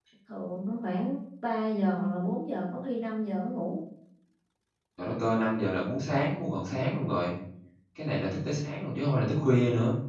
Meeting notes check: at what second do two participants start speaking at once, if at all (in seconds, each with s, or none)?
none